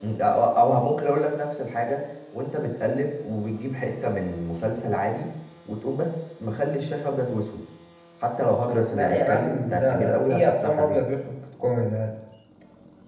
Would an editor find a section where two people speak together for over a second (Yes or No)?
Yes